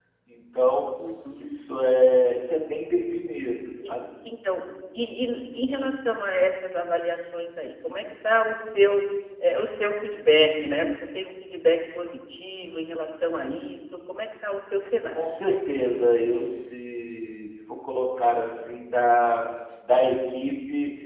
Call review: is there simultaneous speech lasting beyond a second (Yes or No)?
No